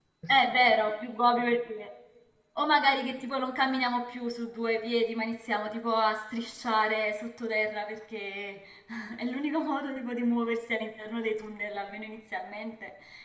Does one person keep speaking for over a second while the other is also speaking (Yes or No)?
No